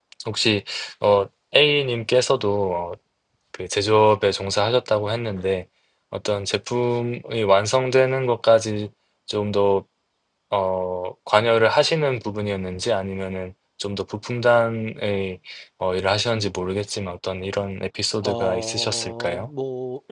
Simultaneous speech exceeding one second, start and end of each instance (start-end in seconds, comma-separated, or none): 18.2-19.5